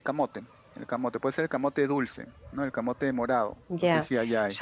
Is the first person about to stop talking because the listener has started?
Yes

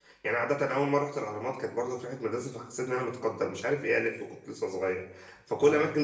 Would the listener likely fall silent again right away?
Yes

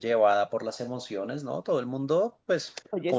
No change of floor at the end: Yes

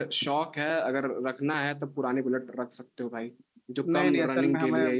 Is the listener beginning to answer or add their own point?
Yes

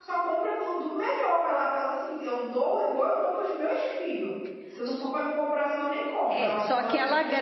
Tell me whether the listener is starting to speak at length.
Yes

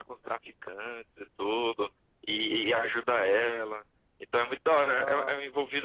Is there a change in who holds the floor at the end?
No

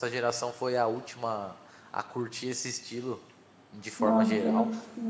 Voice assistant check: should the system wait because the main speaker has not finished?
No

